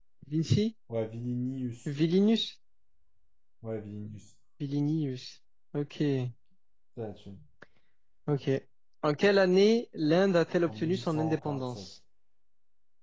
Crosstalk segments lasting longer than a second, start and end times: 10.6-11.8

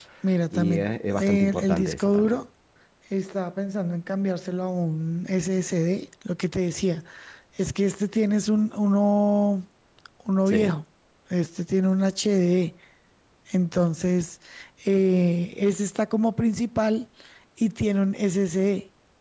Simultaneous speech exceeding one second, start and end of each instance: 0.5-2.4

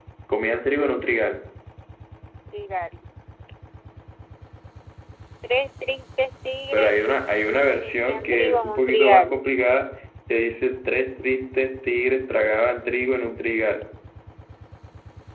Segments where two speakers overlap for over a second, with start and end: 7.7-9.4

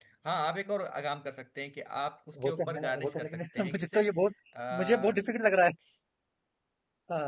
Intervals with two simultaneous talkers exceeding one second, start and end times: 2.4-4.0

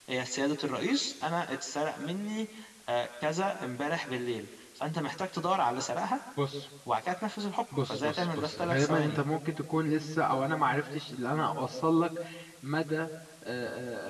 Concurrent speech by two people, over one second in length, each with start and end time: 7.8-9.2

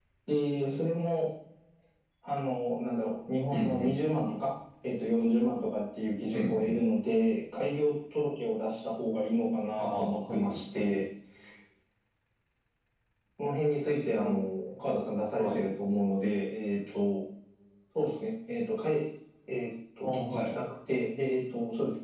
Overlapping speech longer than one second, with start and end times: 9.8-11.0

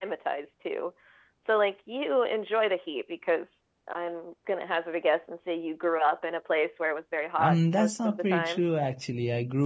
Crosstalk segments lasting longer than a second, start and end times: 7.4-8.6

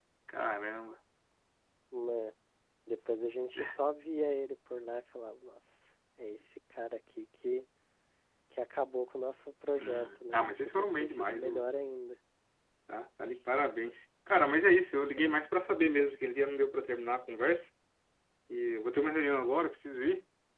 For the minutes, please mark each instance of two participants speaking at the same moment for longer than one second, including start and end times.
9.7-11.7

